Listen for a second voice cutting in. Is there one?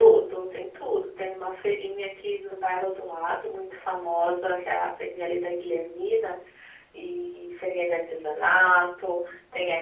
No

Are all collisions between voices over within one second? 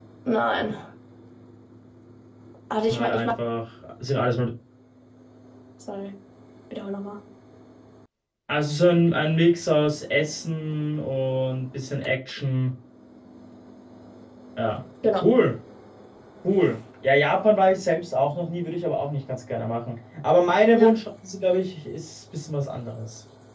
Yes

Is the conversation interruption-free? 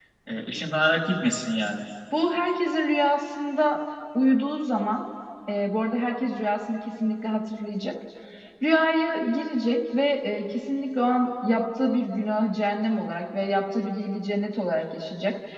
Yes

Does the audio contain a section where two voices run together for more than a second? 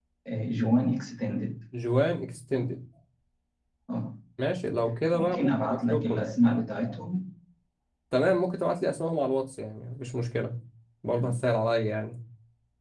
Yes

